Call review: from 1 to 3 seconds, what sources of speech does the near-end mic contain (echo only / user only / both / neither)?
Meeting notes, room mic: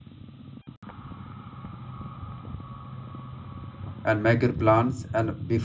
neither